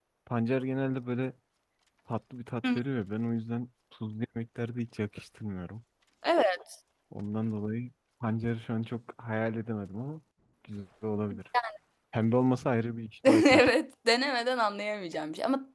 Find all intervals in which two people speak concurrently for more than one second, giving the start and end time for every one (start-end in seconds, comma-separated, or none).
none